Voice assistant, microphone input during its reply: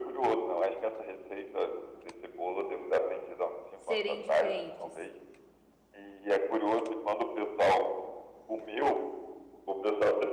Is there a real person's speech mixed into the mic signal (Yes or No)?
Yes